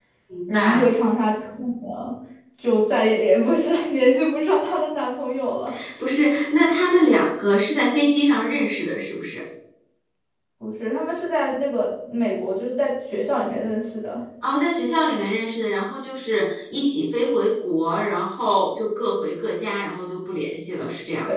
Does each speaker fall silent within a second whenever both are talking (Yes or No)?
Yes